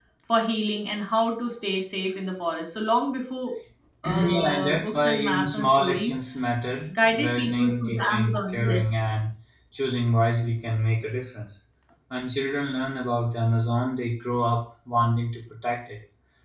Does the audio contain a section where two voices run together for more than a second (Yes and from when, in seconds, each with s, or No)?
Yes, from 4.0 s